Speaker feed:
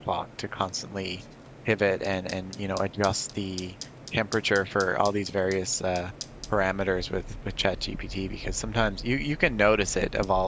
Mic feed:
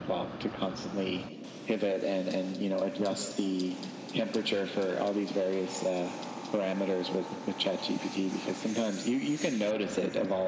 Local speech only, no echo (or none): none